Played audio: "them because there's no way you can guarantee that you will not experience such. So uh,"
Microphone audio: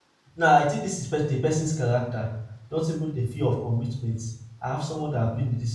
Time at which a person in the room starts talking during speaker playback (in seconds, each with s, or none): 0.4 s